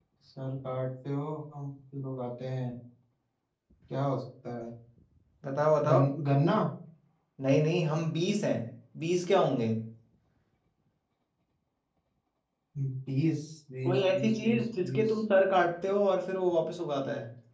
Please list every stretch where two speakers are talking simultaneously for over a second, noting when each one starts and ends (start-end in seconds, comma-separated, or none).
13.8-15.1